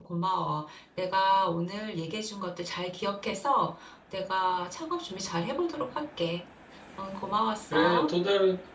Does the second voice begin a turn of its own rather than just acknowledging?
Yes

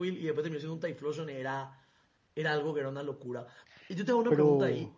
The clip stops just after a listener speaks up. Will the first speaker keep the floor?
Yes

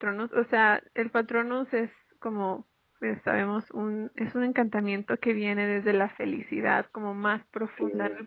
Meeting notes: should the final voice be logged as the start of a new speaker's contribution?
No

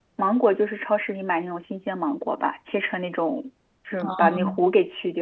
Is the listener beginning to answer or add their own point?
No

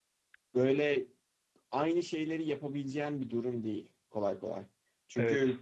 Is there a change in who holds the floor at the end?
No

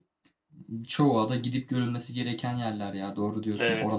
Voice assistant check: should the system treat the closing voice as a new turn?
Yes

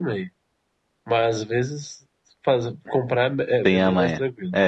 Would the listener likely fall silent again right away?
No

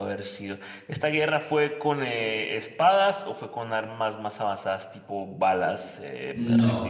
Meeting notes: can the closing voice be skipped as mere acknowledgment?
No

